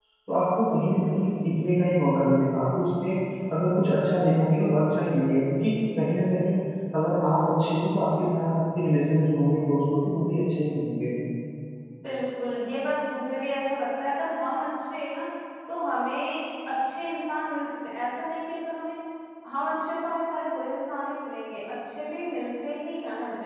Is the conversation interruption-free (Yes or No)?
Yes